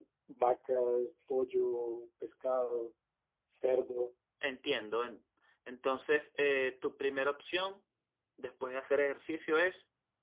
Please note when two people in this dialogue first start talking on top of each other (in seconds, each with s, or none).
none